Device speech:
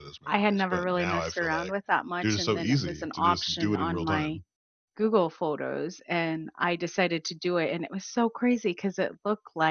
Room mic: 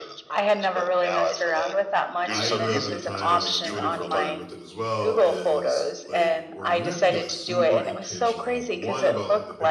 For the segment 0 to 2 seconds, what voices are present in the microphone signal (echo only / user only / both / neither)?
echo only